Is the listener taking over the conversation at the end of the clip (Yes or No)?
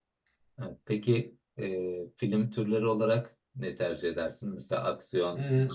No